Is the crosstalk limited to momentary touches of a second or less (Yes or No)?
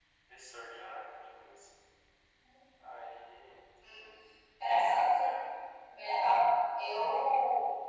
Yes